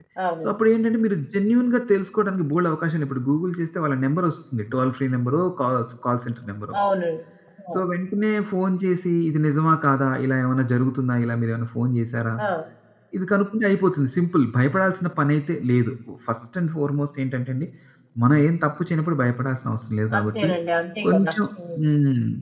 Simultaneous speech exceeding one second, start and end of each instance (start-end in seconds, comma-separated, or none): none